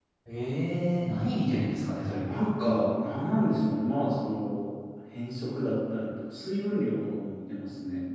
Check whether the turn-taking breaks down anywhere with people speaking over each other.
No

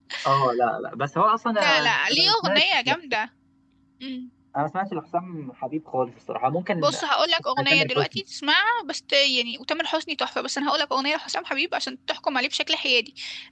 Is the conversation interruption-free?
No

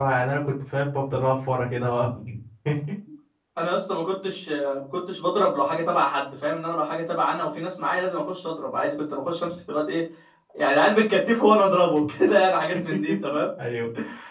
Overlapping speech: No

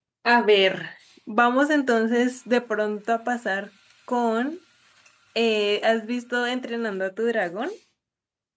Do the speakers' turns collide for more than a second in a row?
No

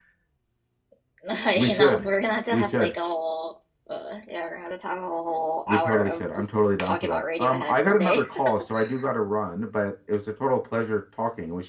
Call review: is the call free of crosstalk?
No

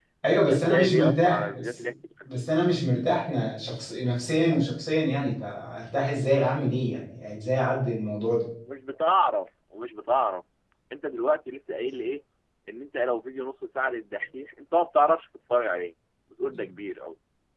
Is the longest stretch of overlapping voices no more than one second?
No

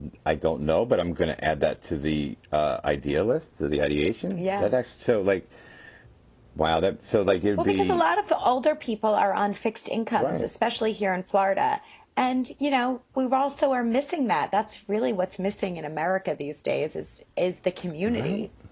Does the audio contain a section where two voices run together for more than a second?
No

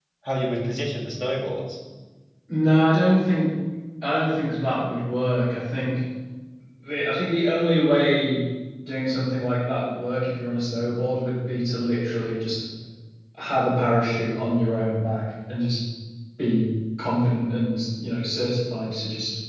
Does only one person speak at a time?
Yes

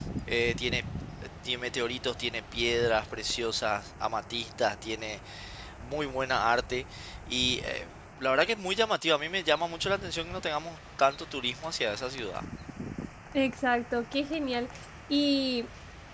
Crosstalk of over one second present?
No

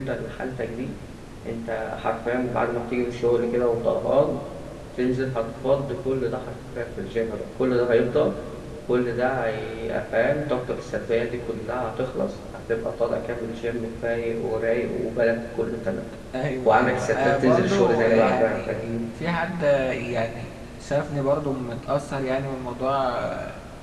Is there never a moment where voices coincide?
No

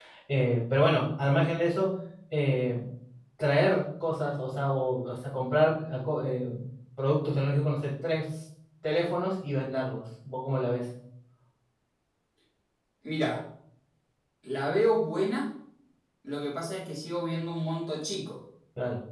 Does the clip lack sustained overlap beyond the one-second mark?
Yes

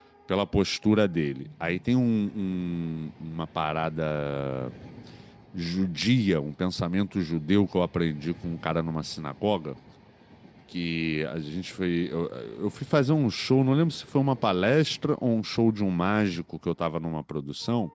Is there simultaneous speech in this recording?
No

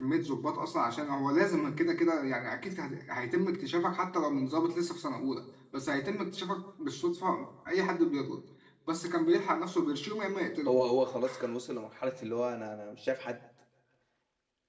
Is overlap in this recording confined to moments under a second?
Yes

